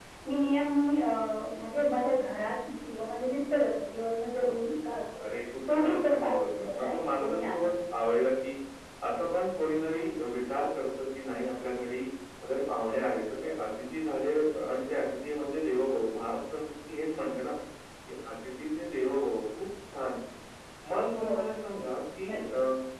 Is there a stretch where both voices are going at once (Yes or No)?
Yes